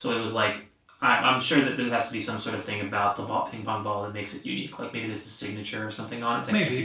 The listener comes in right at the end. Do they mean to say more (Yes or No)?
Yes